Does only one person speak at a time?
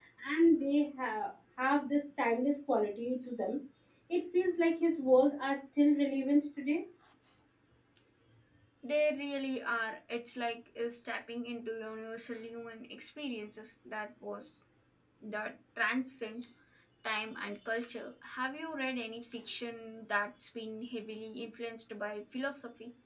Yes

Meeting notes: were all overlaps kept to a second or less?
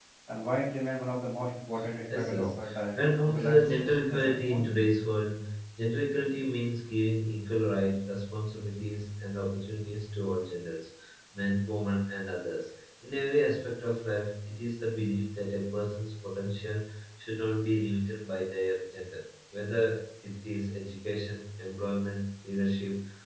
No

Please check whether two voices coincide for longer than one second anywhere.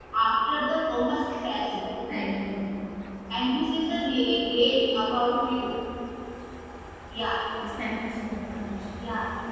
No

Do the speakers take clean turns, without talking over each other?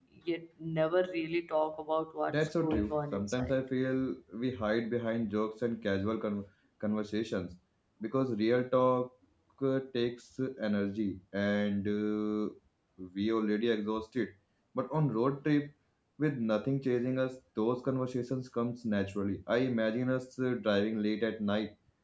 No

